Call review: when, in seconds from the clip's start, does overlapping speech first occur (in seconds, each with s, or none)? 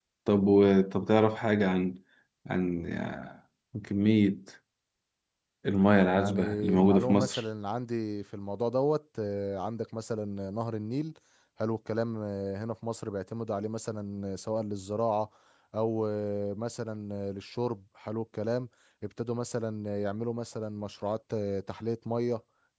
6.2 s